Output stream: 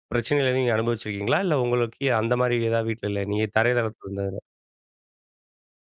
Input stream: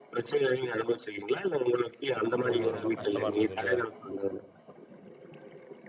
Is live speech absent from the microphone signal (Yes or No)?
No